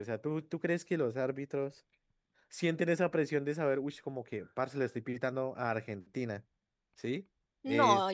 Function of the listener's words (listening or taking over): taking over